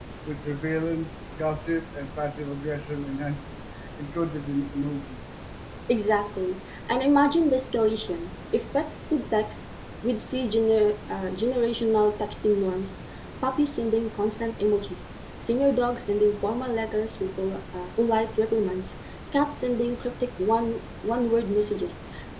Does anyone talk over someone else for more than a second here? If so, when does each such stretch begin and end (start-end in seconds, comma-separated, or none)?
none